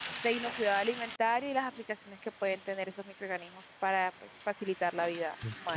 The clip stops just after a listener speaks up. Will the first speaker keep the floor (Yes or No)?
No